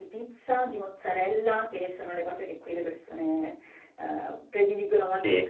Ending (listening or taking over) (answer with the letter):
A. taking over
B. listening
B